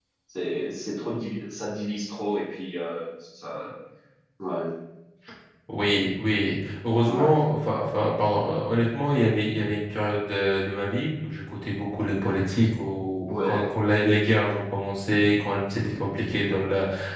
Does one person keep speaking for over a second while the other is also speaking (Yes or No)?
No